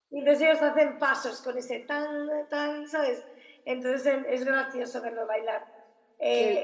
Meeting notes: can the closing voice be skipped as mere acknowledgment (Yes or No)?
Yes